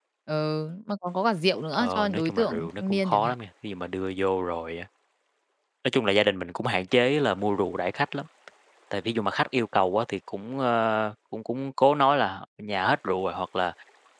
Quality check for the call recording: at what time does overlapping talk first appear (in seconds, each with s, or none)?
1.7 s